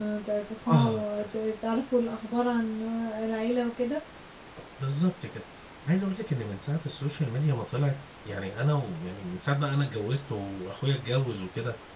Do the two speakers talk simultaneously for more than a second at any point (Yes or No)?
No